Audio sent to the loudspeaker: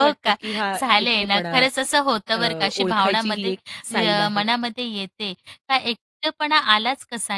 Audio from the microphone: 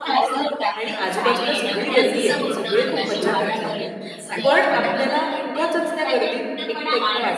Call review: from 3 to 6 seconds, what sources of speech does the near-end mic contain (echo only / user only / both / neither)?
both